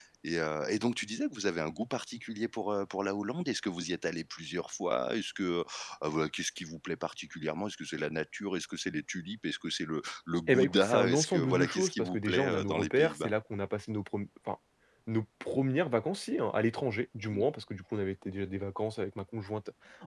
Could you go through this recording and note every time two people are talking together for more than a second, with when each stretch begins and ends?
10.5-13.3

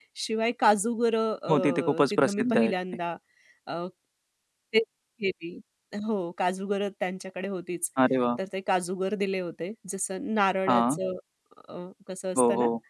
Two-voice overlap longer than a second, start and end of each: 1.5-2.7

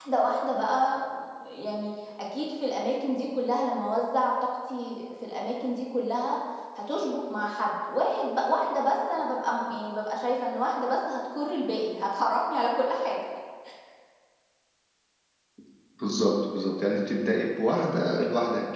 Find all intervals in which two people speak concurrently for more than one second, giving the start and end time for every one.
none

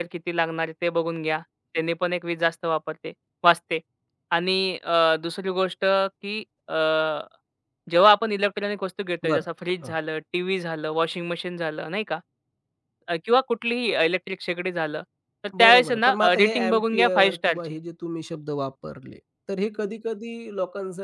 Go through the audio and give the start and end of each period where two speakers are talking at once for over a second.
15.6-17.8

